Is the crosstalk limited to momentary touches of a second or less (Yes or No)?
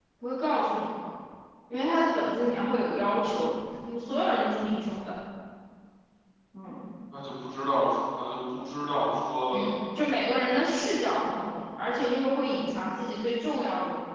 Yes